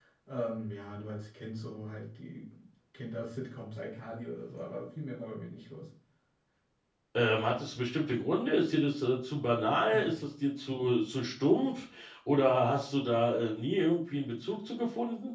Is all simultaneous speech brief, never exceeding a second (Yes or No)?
Yes